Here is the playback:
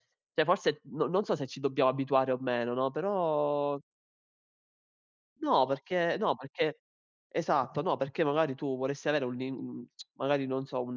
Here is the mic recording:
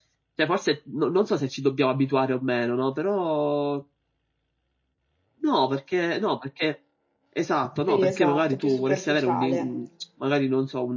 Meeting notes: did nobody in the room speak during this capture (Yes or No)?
No